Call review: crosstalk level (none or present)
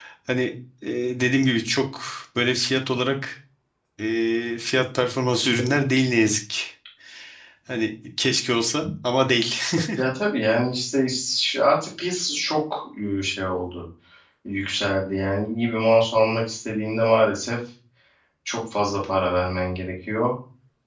none